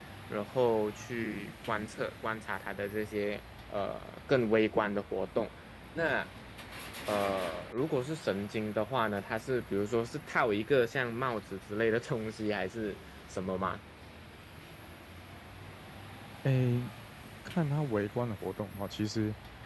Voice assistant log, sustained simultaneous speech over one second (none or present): none